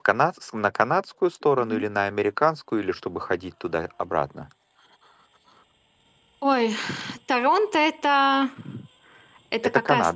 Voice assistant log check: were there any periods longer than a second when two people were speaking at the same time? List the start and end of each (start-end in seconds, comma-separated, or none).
none